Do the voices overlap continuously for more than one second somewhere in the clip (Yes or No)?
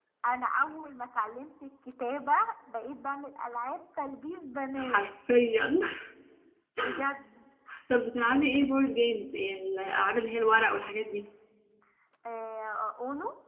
No